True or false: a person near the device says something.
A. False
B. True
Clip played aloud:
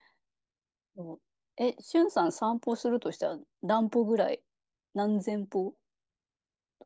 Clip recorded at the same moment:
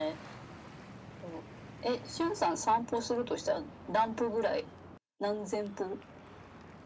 A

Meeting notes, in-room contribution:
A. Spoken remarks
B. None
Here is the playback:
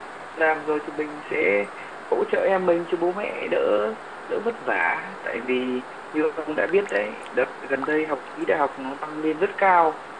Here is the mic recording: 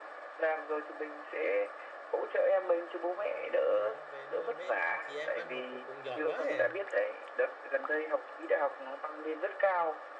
A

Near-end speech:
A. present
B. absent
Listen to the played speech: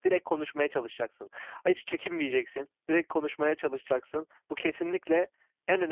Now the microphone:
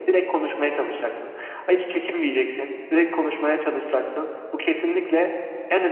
B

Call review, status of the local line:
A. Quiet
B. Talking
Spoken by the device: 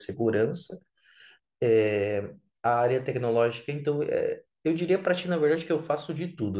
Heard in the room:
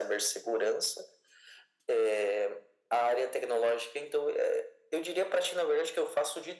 A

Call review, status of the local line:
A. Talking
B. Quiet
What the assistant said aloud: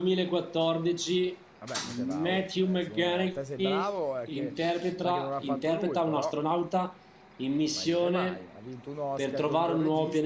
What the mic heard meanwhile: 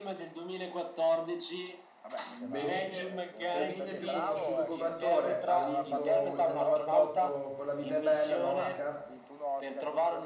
A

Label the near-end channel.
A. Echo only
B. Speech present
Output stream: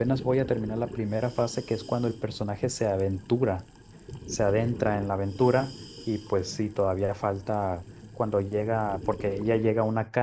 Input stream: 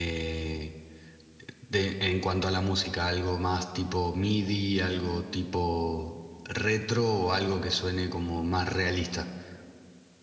B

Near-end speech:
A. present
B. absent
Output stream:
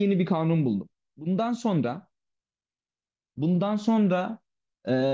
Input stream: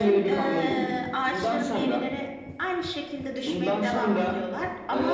A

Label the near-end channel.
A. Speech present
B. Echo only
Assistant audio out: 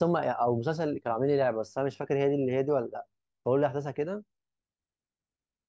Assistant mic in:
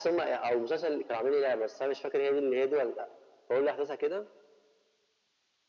B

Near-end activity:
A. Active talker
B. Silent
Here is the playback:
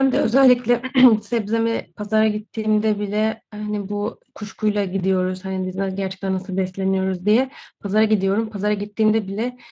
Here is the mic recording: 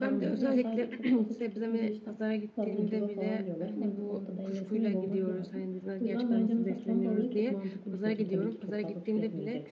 A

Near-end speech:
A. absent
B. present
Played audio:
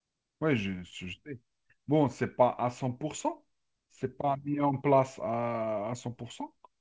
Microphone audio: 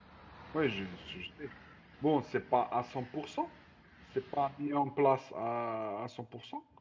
A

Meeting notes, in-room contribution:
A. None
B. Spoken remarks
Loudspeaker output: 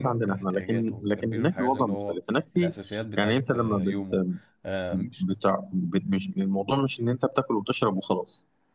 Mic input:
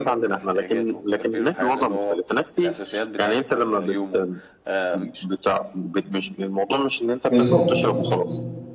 B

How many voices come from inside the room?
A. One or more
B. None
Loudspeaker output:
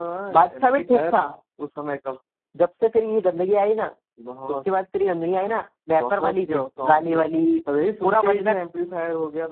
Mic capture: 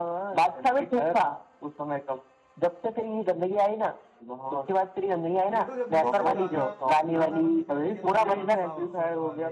A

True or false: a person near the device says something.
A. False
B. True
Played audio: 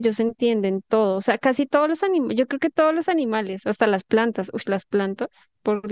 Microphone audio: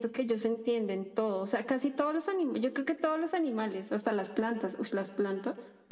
A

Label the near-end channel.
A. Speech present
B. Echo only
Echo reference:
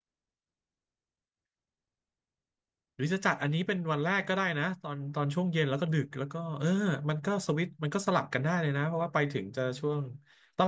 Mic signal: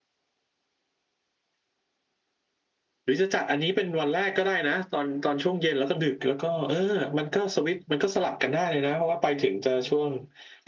B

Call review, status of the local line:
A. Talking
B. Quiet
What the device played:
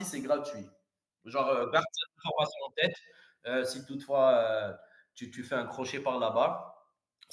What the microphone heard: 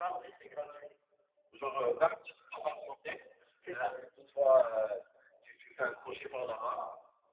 A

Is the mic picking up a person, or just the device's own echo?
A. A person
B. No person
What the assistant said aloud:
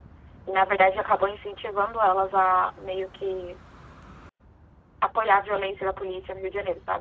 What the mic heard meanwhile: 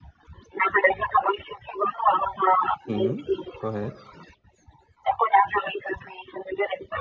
A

